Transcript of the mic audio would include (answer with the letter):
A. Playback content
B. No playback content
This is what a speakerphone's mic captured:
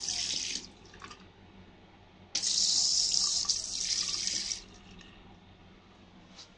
B